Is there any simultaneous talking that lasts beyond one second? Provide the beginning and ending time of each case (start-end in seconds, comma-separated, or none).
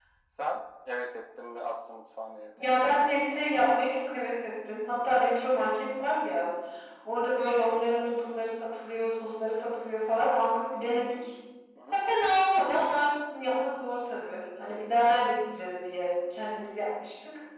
none